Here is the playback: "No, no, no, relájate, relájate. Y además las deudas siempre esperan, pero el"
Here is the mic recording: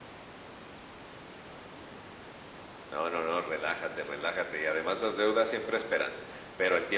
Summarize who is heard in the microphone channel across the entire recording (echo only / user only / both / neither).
echo only